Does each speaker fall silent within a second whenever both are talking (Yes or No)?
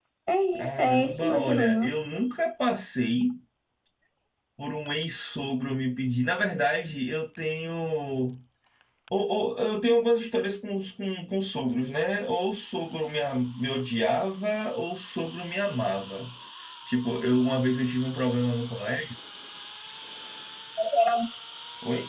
No